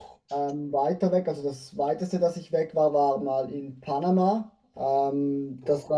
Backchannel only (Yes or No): Yes